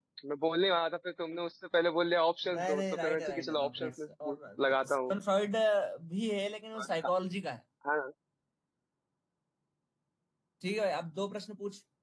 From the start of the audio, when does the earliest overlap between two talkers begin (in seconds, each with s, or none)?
2.5 s